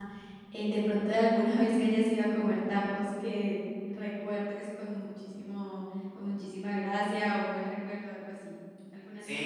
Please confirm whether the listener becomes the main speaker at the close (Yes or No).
Yes